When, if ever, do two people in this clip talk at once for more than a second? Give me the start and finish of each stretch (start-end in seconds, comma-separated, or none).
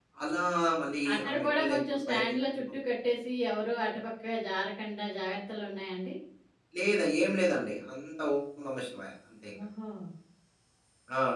1.1-2.6